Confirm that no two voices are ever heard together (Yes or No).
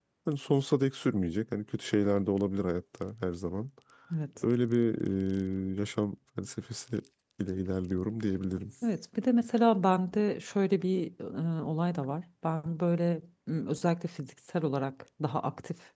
Yes